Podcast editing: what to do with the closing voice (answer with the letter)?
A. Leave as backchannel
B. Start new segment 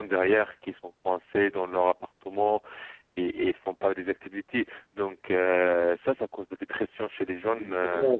B